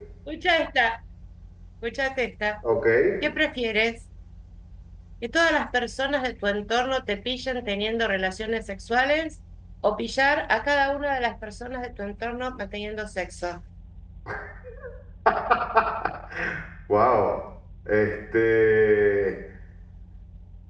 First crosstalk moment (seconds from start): none

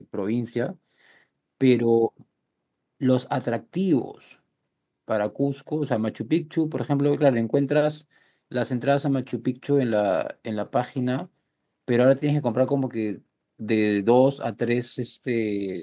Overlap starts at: none

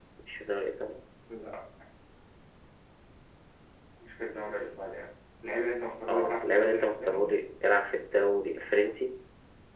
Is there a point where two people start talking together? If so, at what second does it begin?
6.1 s

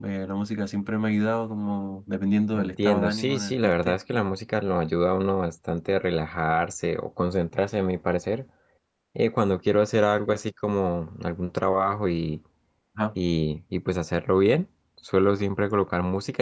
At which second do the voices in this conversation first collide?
2.6 s

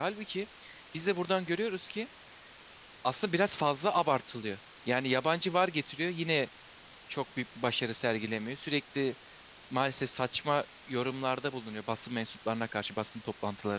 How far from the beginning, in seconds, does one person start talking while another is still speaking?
none

